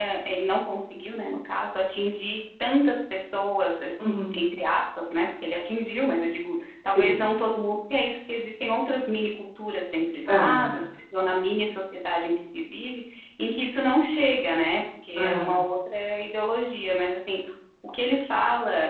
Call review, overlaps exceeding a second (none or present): none